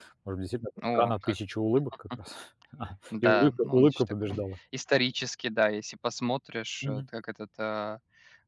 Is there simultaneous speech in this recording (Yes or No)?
Yes